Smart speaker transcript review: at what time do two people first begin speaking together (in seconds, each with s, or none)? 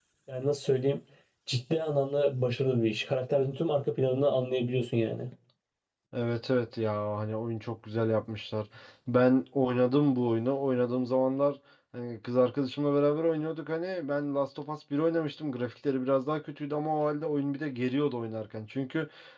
none